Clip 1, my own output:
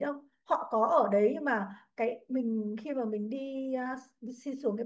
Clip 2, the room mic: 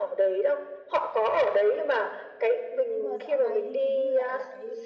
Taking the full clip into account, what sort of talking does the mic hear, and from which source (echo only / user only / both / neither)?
both